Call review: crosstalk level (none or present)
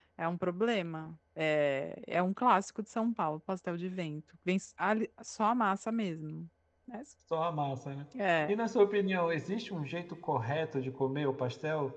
none